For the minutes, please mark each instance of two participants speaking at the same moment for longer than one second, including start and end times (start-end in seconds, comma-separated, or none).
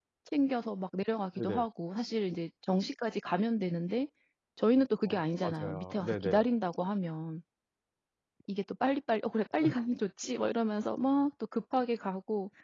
5.1-6.5